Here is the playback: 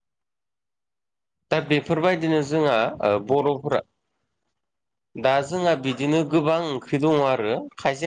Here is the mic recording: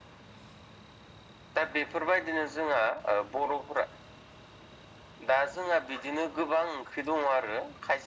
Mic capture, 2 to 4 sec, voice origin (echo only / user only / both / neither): echo only